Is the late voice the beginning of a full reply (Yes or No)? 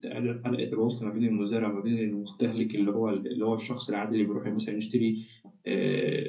No